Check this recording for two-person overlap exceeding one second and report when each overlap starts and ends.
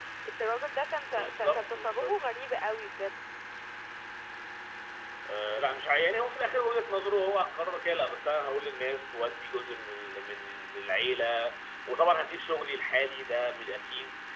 1.0-2.2

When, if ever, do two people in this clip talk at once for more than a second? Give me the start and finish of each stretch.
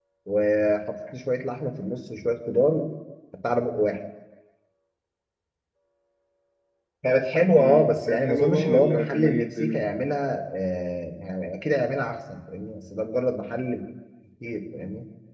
7.6-9.8

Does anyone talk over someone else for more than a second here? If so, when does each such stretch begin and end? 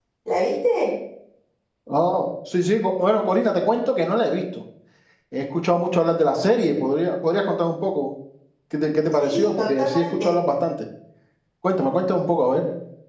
9.1-10.4

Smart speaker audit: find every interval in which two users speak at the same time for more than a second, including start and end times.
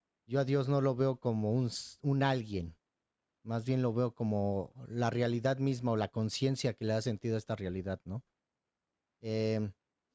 none

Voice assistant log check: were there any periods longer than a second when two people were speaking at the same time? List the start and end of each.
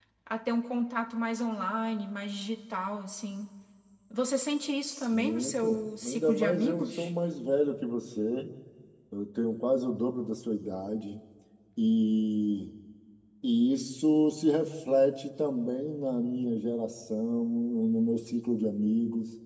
4.9-7.1

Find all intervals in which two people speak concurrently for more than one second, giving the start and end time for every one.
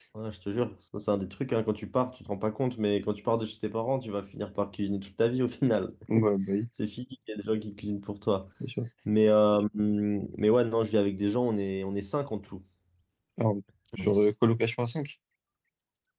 none

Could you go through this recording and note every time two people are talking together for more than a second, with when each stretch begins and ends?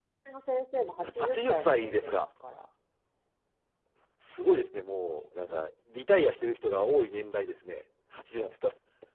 1.0-2.3

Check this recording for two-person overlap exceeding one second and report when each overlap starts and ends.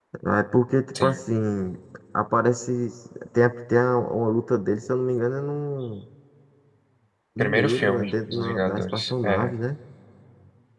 7.4-9.5

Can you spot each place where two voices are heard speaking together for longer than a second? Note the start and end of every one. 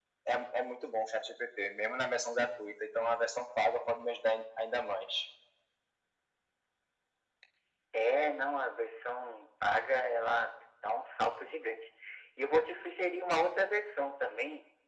none

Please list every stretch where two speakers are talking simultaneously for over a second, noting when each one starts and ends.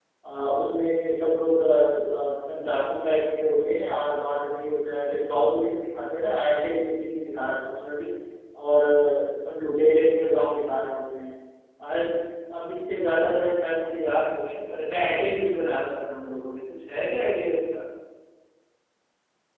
none

